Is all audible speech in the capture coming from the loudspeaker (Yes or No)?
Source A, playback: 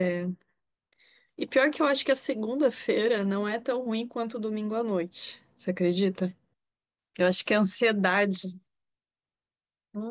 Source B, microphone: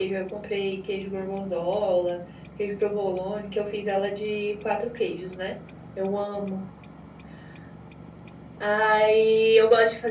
No